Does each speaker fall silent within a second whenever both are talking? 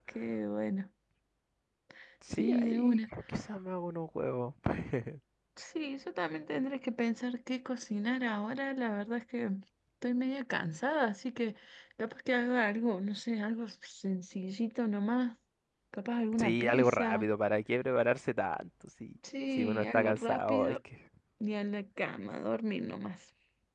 No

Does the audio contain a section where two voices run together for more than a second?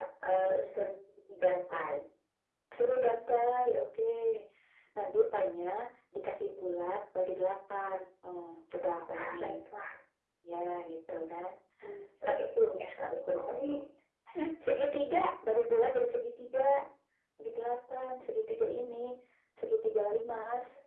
No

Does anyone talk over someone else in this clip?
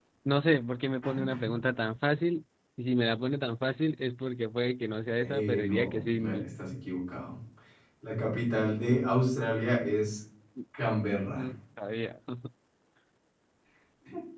Yes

